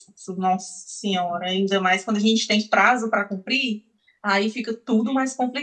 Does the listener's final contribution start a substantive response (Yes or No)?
No